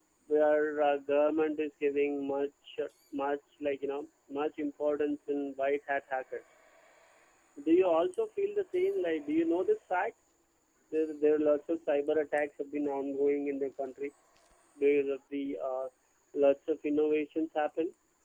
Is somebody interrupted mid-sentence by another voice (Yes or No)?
No